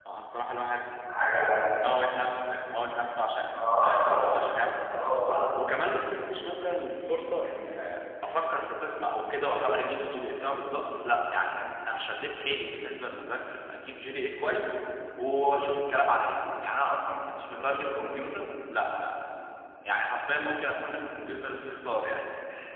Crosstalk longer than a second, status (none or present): none